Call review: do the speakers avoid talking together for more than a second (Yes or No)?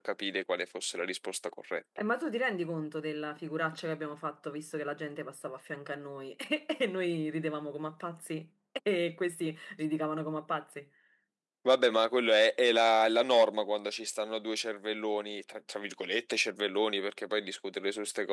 Yes